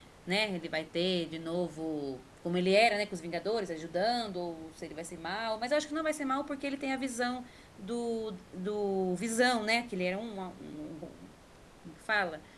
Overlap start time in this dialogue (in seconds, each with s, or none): none